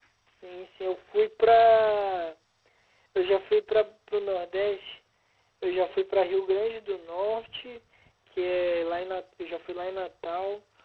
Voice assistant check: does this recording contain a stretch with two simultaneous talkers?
No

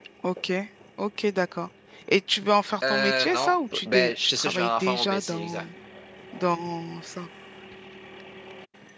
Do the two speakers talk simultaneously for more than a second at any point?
Yes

